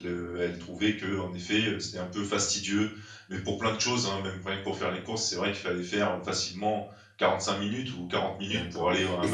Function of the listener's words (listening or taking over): taking over